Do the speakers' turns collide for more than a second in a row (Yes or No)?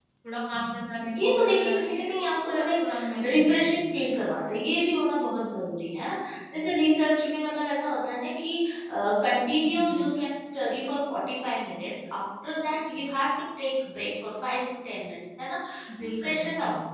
Yes